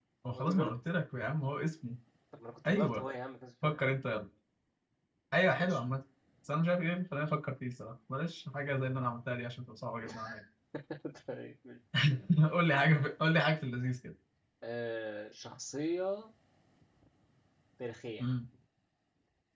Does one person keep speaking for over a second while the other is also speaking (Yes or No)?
No